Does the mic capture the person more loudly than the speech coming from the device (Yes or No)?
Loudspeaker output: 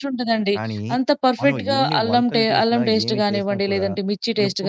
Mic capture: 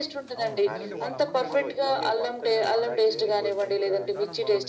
No